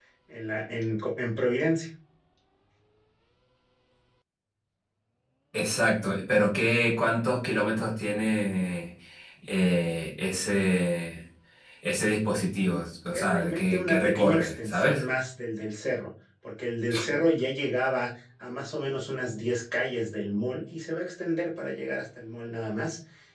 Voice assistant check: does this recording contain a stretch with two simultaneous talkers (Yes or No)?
Yes